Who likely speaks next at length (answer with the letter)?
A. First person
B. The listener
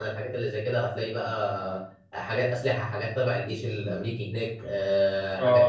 B